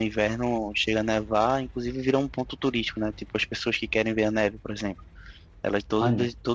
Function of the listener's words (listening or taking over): listening